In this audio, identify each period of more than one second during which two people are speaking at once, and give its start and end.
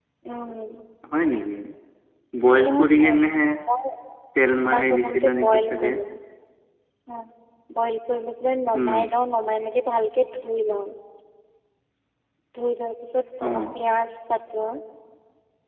4.7-5.9

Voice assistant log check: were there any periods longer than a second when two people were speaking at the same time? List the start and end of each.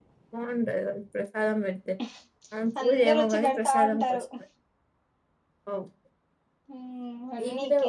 2.8-4.2

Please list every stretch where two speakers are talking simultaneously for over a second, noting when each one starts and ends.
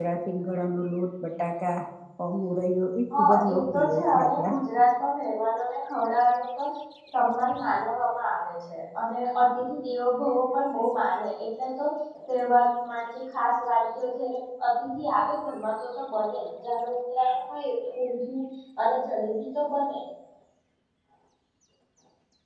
3.2-4.5

